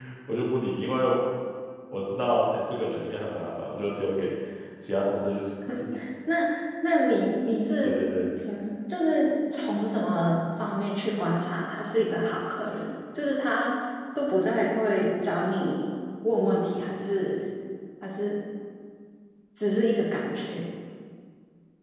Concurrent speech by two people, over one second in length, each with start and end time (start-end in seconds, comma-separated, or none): none